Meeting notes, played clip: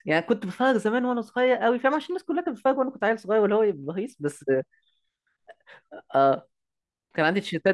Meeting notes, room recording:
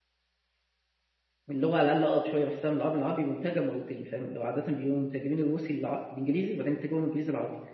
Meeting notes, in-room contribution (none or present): present